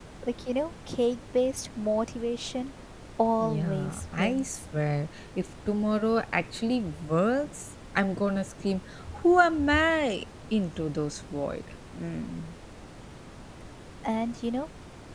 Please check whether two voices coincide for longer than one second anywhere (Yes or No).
Yes